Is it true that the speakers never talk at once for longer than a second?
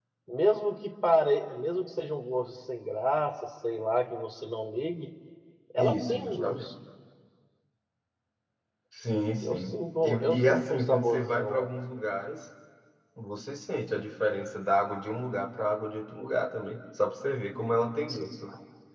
No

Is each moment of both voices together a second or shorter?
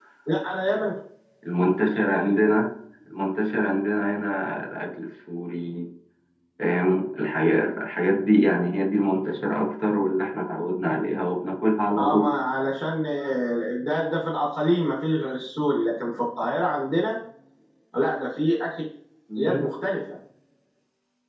Yes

